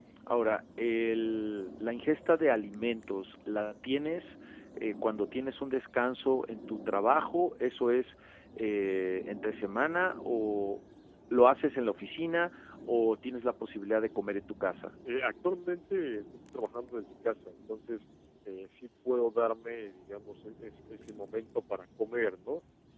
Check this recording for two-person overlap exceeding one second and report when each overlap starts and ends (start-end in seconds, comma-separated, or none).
none